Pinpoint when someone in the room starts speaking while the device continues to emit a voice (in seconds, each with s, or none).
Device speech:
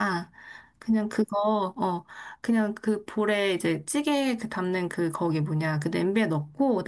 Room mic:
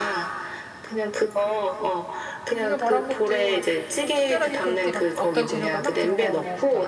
2.4 s